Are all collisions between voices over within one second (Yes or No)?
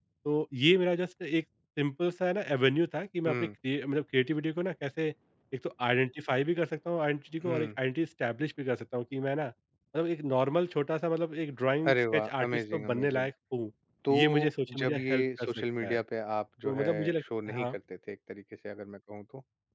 No